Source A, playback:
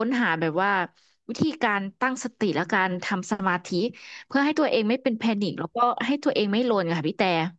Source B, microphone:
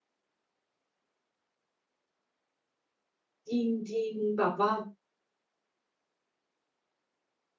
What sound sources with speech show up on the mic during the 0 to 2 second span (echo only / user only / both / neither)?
neither